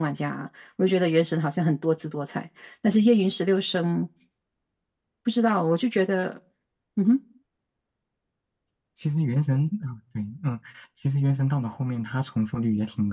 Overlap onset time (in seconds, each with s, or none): none